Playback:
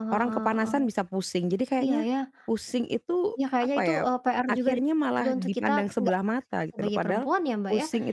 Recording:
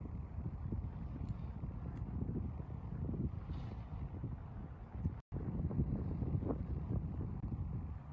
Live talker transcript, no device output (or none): none